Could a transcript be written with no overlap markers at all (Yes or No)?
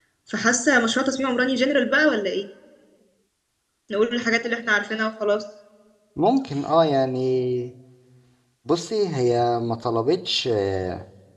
Yes